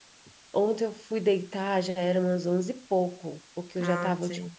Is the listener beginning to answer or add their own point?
No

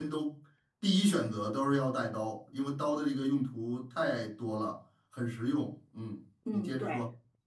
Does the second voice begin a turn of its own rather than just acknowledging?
Yes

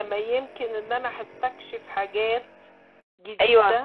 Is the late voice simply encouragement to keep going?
No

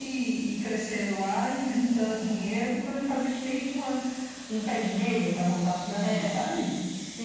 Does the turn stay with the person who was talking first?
No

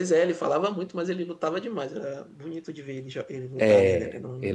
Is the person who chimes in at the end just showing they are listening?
No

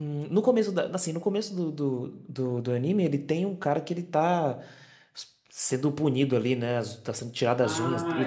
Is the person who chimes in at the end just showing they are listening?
No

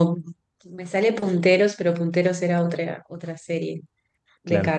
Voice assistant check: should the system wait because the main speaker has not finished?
Yes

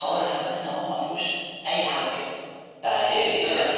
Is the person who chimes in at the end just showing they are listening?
Yes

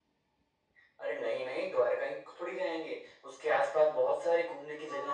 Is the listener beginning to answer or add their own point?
Yes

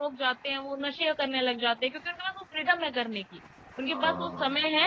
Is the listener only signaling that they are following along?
Yes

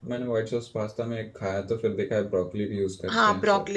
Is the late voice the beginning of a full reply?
Yes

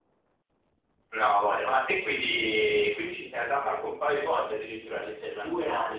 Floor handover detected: Yes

